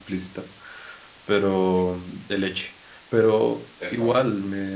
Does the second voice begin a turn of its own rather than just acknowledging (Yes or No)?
No